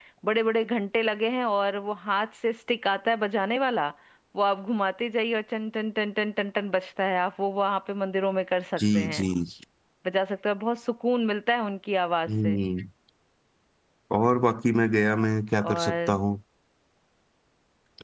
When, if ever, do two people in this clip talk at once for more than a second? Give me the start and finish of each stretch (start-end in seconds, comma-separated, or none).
none